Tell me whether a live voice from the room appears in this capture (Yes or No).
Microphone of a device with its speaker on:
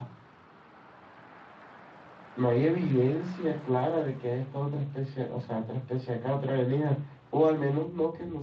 Yes